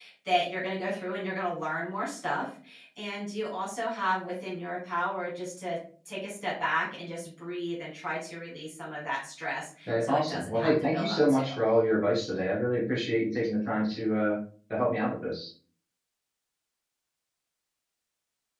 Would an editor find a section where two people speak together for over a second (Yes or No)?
Yes